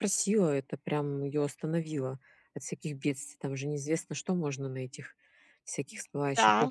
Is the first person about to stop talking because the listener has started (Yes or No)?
Yes